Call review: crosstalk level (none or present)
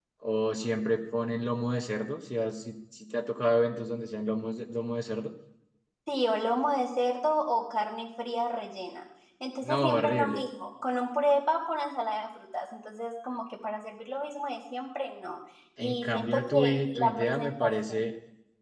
present